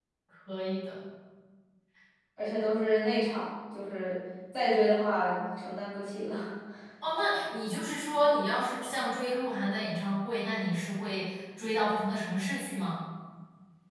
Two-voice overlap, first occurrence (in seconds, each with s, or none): none